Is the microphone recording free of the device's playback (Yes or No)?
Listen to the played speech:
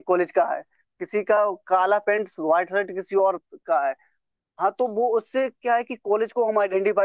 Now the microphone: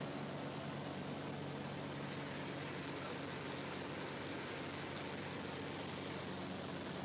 Yes